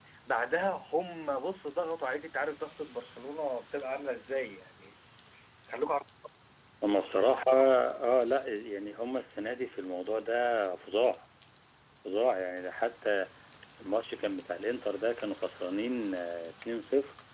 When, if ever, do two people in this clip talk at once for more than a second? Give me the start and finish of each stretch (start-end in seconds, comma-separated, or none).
none